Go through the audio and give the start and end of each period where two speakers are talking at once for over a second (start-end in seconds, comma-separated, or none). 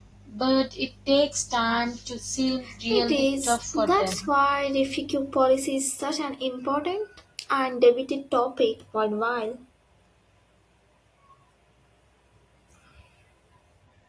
2.9-4.3